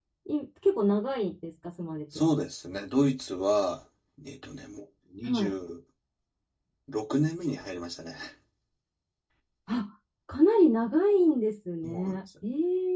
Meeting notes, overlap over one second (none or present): none